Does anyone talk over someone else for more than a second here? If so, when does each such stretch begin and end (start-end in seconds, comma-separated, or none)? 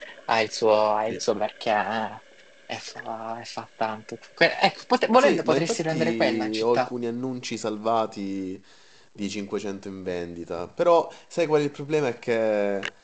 5.2-6.9